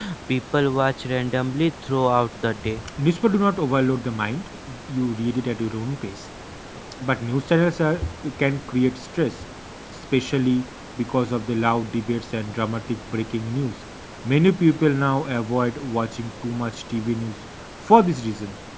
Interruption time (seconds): none

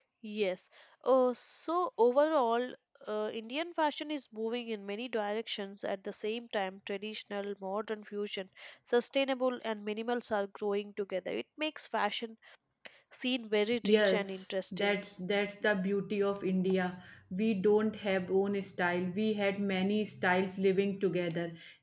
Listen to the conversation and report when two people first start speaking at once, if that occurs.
13.8 s

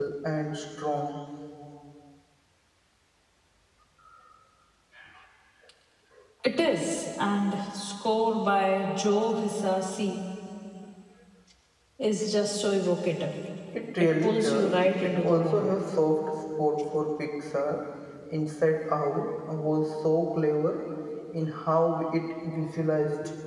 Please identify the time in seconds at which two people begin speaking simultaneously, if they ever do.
14.0 s

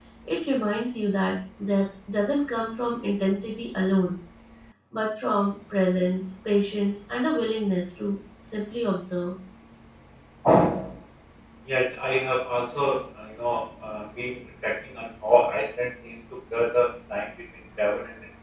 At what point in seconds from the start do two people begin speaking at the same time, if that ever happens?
none

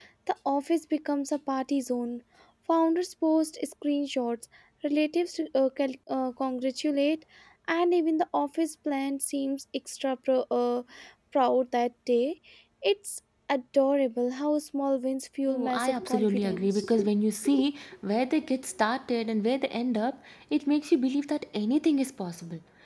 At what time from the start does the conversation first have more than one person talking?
15.5 s

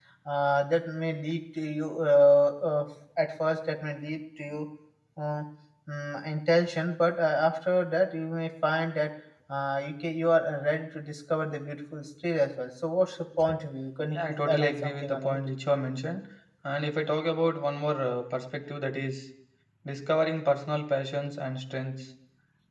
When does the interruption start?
14.1 s

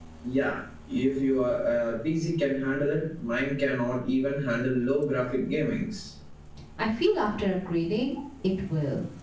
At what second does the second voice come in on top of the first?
none

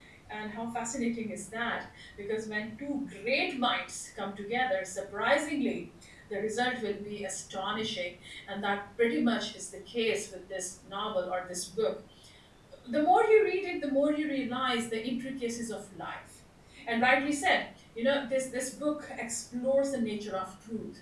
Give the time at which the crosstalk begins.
none

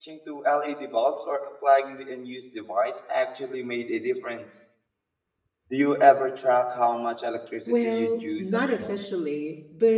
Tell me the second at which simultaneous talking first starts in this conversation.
7.7 s

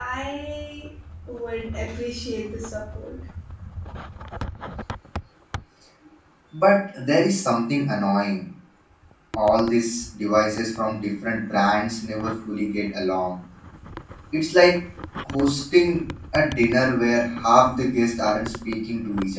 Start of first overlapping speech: none

